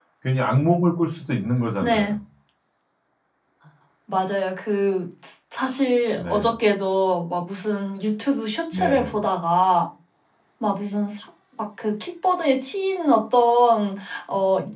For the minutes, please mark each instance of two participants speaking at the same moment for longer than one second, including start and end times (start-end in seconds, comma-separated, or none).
none